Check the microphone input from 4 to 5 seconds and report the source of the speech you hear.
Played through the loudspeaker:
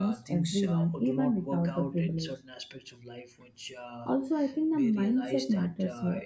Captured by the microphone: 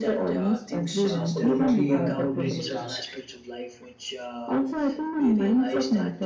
echo only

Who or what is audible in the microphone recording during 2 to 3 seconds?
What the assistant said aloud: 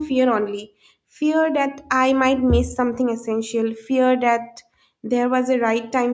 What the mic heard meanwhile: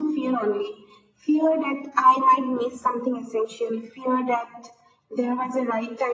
echo only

